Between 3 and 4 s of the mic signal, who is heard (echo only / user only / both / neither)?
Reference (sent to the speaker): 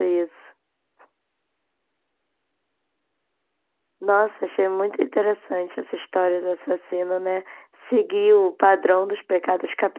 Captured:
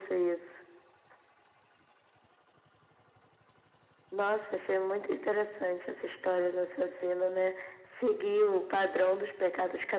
neither